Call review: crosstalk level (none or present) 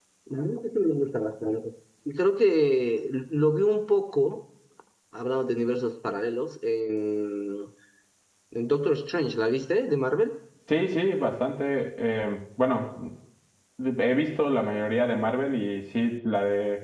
none